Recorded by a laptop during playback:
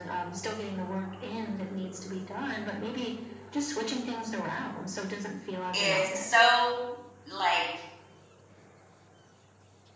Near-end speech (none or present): present